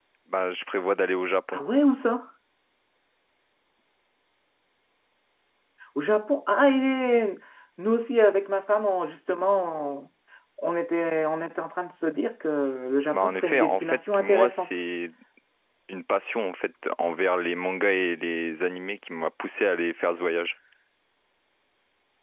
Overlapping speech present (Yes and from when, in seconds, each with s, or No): Yes, from 13.1 s